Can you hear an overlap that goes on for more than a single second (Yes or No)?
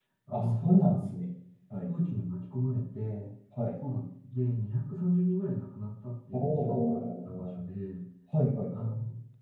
Yes